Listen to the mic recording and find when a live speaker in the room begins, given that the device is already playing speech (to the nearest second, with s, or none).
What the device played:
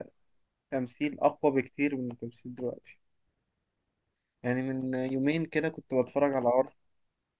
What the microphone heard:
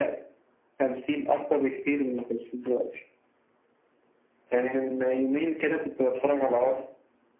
none